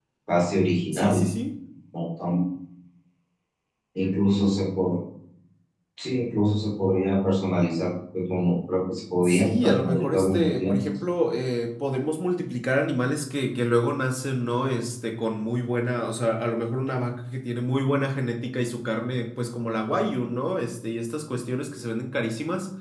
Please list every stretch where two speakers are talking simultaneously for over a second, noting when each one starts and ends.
9.2-10.9

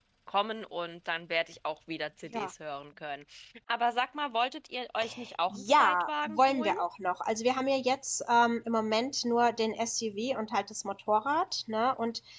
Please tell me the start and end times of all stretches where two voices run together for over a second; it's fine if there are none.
5.5-6.8

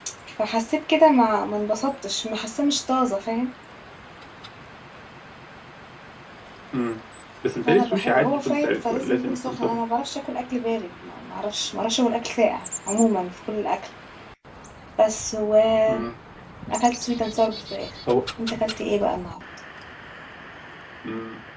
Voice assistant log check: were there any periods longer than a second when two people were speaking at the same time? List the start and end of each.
7.7-9.8

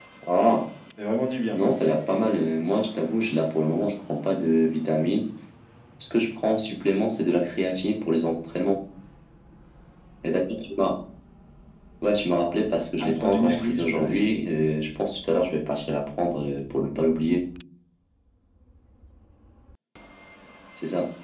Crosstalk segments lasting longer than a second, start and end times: 13.0-14.3

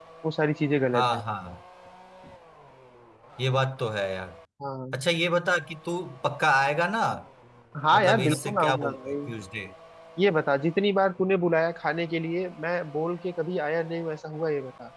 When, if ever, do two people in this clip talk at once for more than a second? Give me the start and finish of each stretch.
7.9-9.2

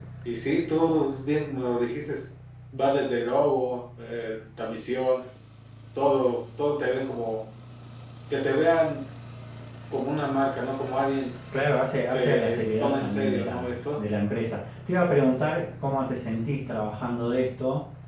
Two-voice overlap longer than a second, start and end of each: 12.1-14.0

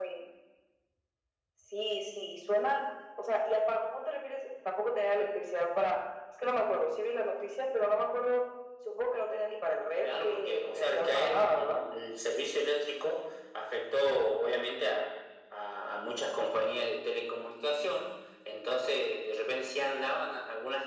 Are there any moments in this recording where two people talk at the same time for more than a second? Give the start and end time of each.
10.0-11.8

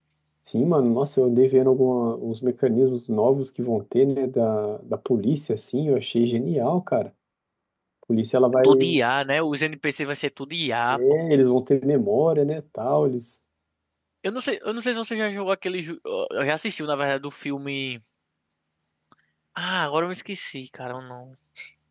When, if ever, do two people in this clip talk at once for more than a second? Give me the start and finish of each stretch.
none

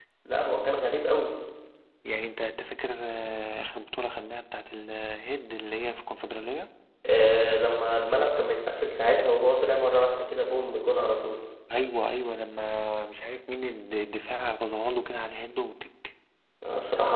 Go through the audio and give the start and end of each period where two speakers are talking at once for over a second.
none

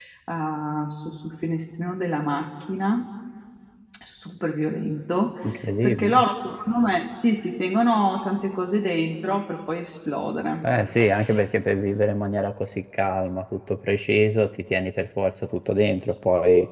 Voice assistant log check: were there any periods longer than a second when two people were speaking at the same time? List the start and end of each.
none

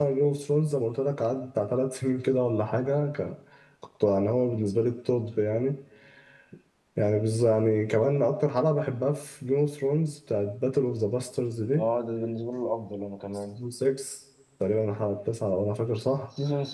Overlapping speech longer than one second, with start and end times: none

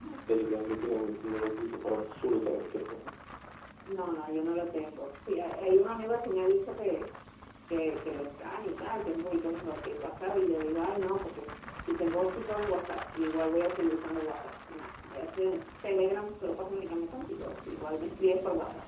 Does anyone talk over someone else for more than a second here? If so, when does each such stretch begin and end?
none

